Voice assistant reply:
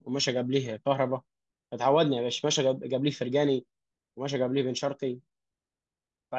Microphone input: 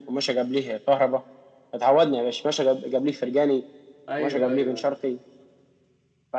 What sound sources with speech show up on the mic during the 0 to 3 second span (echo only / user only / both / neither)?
echo only